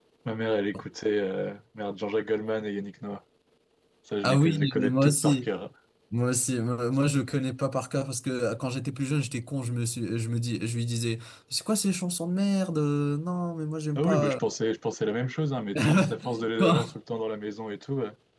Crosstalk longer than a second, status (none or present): present